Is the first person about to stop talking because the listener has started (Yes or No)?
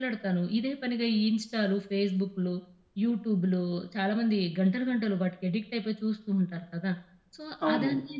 No